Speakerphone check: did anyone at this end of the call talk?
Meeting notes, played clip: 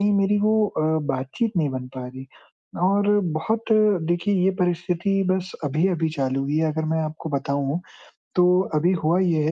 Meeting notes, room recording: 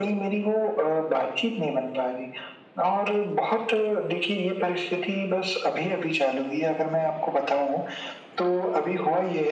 No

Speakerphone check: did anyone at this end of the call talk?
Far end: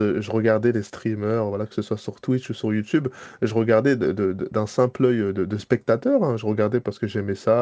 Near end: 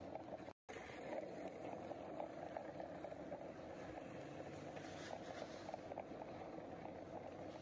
No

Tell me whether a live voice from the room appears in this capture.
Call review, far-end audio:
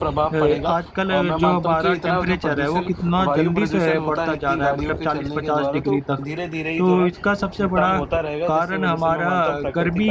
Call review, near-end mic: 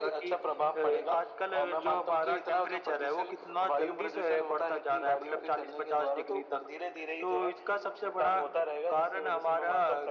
No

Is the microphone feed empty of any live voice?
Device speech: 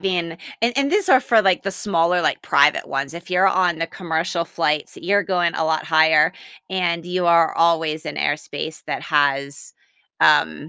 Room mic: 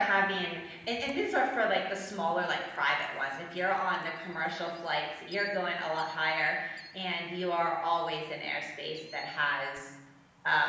Yes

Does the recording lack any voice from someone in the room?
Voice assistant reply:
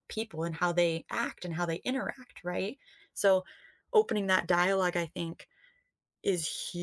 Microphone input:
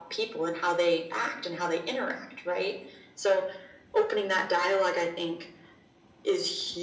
Yes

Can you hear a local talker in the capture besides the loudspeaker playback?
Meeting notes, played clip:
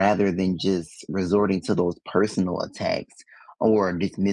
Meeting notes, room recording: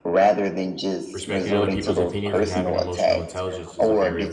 Yes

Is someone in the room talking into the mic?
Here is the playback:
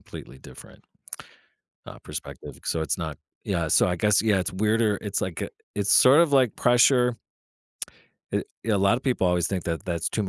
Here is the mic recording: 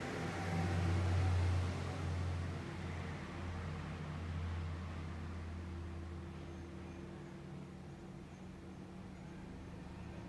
No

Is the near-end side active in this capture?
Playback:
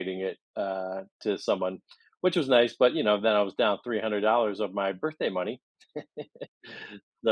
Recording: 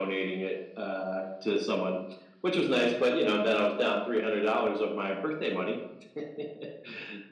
No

